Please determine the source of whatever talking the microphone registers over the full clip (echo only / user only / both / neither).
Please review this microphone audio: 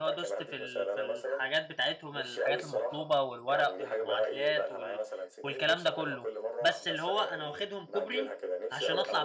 both